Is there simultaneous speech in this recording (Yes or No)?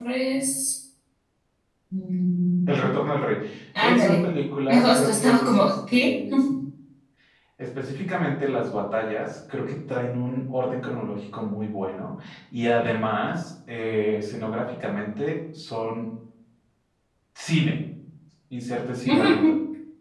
Yes